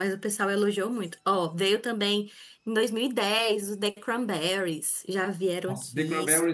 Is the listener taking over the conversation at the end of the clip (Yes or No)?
Yes